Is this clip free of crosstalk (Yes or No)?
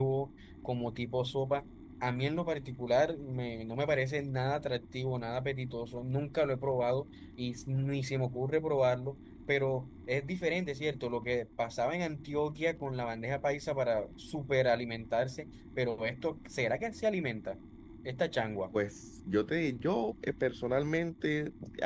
Yes